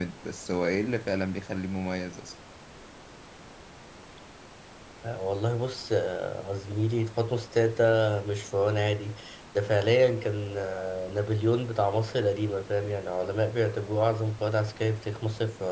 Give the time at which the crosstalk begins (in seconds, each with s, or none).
none